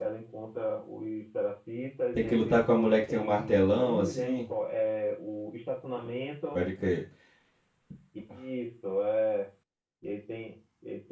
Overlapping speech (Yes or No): Yes